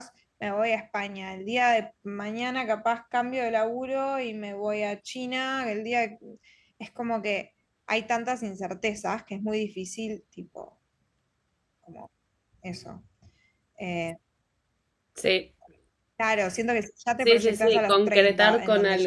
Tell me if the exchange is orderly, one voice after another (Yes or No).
No